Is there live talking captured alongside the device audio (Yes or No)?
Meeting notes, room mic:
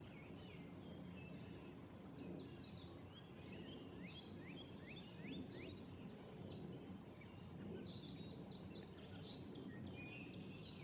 No